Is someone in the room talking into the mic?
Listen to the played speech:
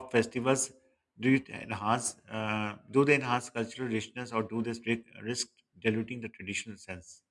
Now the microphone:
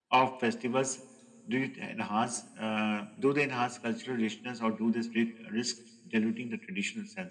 No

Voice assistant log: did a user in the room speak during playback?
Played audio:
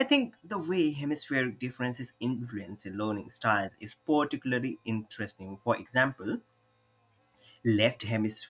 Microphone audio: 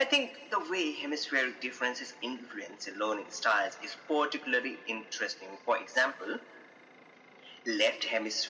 No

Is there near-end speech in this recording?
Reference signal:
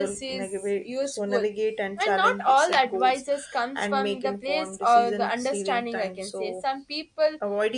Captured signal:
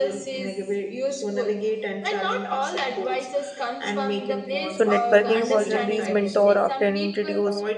Yes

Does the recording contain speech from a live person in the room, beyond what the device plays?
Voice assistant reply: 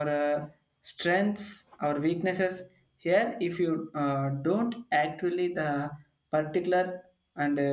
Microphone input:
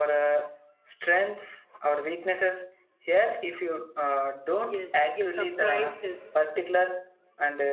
Yes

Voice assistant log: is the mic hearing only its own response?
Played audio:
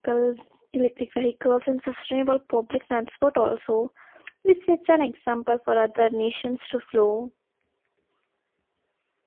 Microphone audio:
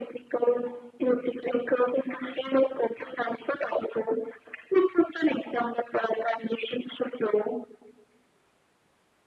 Yes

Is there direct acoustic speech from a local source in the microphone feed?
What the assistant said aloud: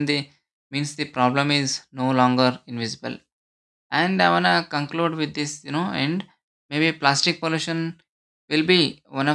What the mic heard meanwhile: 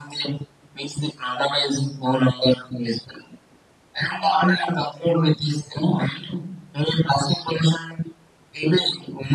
No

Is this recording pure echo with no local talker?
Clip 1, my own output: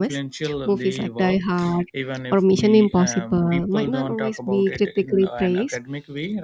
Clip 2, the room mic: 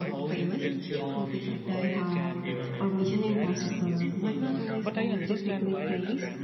No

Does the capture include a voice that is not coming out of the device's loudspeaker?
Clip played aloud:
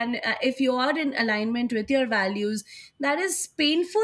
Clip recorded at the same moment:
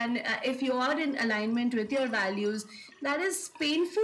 No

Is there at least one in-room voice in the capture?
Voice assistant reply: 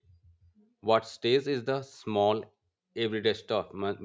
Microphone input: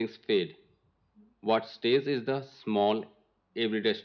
No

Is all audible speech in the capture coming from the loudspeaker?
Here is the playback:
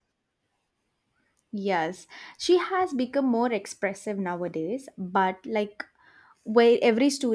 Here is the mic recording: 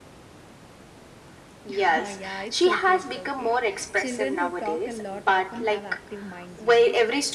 No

